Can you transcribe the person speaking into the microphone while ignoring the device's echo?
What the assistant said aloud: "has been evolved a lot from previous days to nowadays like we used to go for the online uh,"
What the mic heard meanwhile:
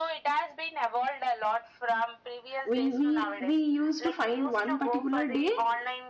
we we we used to find one particular day

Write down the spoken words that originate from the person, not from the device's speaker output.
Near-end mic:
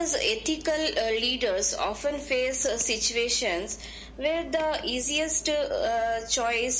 none

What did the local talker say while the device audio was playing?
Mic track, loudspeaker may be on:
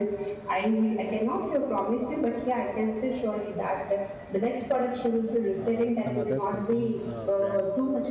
uh, some other company uh, brand

